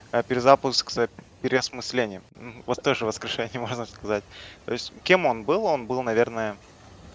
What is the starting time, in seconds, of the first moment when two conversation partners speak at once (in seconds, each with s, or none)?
none